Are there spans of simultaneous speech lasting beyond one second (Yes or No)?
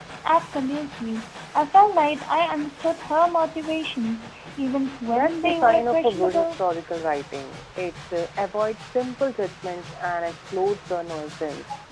Yes